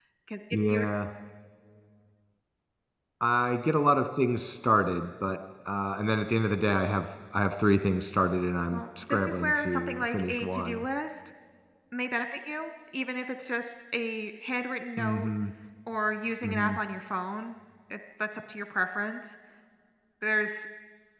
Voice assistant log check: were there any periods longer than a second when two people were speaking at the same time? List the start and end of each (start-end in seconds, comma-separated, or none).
8.7-10.9